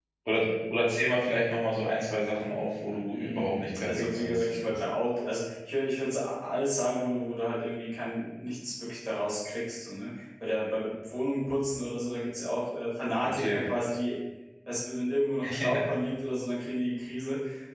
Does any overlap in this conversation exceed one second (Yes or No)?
Yes